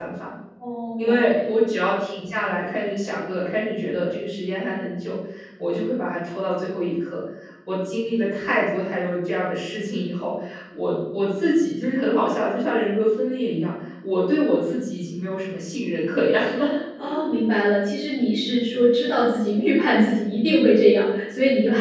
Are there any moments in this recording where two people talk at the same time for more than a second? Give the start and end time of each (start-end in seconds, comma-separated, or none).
none